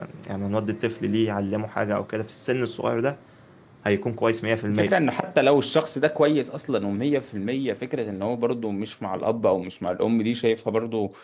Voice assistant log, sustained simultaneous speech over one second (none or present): none